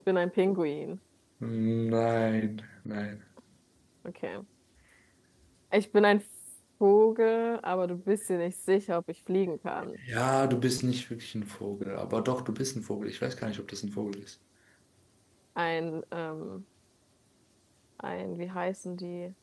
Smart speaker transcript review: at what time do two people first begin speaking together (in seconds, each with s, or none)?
none